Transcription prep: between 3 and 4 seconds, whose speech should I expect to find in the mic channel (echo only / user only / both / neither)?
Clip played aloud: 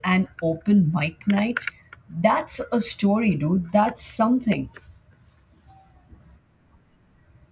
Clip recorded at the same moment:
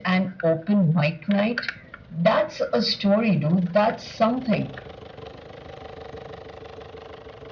echo only